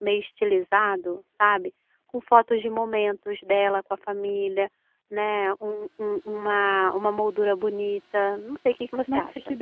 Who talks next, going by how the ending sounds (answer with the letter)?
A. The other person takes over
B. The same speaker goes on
A